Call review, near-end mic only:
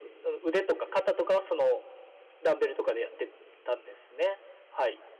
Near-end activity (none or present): none